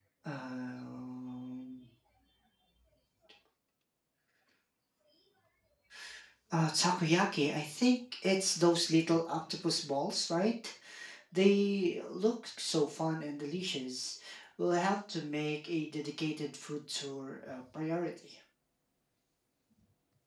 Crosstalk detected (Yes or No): No